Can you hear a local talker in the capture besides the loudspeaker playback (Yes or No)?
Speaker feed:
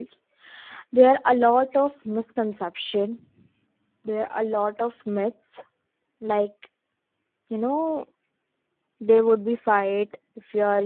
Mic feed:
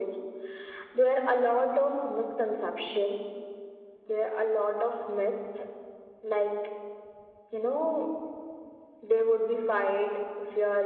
No